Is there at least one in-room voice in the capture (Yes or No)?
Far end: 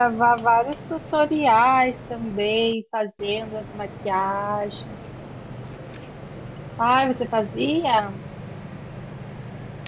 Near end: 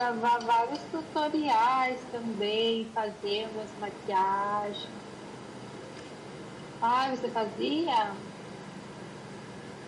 No